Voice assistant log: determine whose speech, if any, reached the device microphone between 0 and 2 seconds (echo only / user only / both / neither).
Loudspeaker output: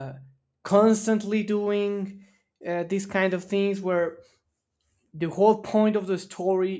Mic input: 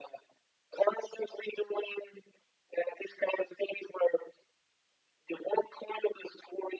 echo only